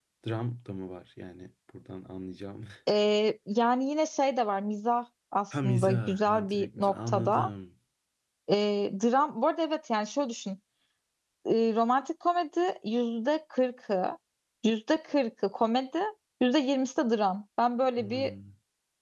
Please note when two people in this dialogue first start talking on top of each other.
5.6 s

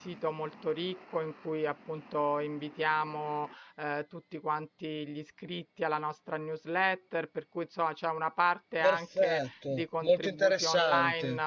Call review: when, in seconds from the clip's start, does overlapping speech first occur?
8.8 s

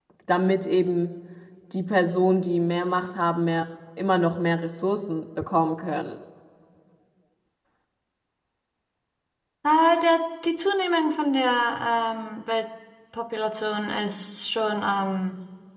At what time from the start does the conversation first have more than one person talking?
none

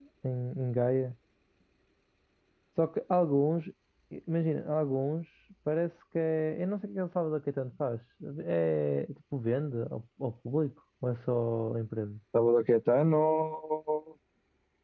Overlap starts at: none

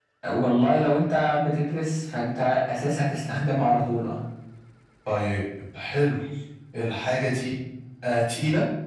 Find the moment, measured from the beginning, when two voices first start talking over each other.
none

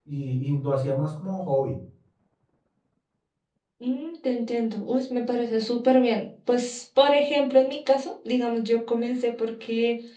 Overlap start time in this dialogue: none

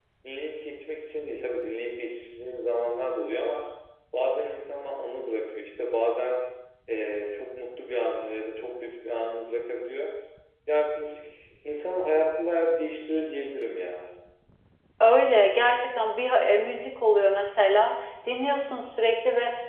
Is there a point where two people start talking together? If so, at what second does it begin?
none

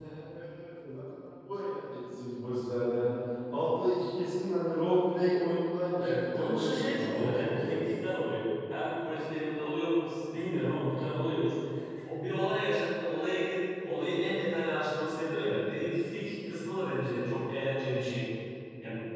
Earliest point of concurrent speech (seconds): 6.0 s

